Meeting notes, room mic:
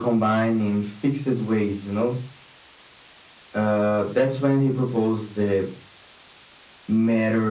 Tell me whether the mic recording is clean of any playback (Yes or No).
No